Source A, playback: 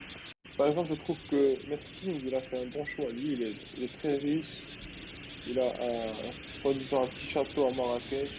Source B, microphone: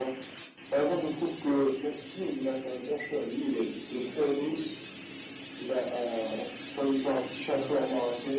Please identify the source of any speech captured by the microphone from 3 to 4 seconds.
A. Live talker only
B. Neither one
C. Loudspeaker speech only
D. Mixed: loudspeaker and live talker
C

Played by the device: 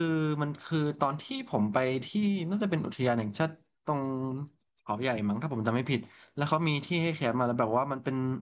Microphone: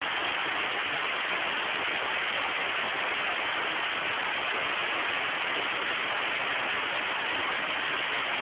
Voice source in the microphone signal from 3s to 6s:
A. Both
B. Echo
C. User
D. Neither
D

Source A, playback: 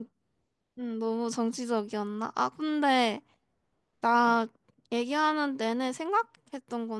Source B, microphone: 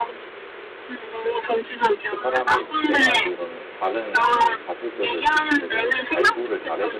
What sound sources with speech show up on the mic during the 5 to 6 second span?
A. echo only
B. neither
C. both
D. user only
C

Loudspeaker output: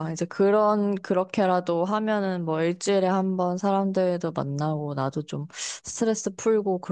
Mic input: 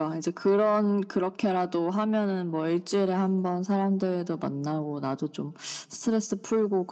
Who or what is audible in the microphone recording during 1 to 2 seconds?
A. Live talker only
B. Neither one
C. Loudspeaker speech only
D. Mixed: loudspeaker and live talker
C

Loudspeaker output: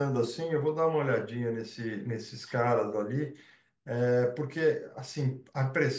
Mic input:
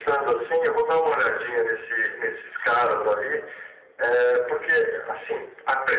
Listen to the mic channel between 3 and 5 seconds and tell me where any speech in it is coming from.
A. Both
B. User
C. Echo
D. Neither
C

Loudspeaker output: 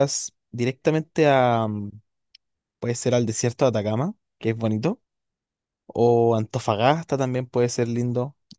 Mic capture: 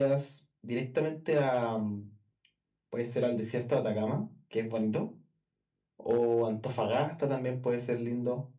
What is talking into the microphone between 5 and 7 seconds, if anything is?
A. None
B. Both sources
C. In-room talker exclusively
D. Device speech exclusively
D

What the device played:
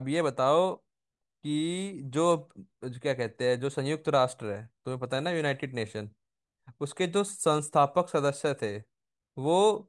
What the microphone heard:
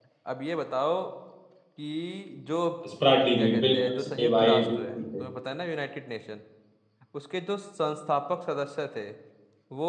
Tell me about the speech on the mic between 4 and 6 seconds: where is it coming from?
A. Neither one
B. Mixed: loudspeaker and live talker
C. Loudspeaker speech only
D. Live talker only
B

